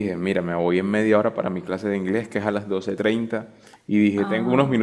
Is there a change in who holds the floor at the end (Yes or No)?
No